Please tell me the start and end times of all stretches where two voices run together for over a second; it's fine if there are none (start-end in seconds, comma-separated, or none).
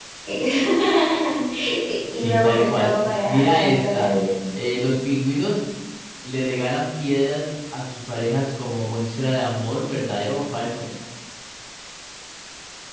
2.1-4.1